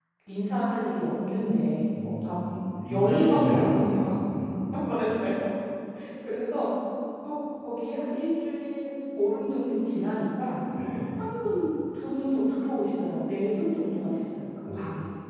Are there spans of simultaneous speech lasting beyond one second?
Yes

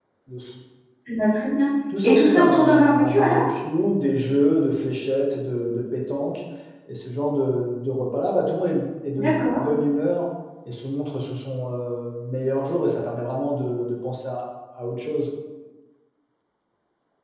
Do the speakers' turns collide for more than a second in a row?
Yes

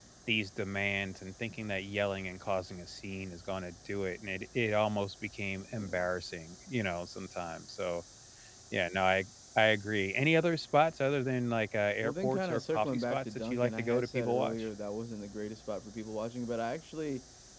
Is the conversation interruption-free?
No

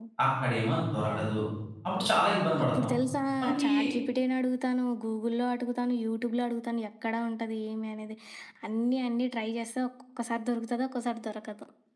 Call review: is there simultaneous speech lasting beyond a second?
No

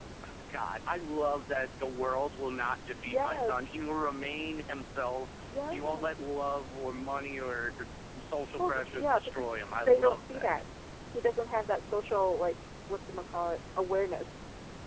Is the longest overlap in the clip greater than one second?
Yes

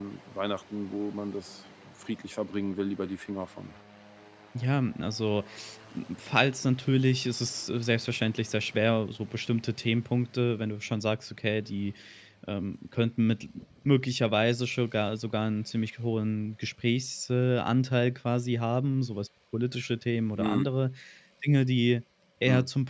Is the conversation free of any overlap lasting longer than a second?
Yes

